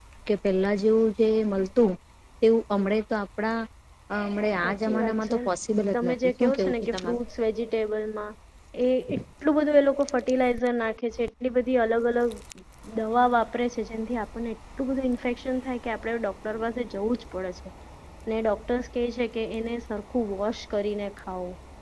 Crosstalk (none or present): present